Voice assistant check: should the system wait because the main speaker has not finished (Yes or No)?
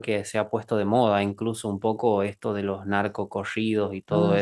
Yes